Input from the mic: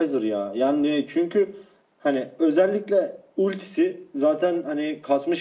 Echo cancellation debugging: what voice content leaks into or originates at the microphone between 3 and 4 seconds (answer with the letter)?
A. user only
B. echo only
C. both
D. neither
A